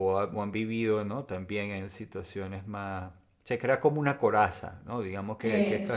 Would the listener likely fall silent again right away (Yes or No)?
Yes